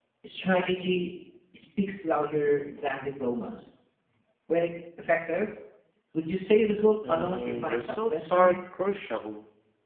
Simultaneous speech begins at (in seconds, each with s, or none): 7.1 s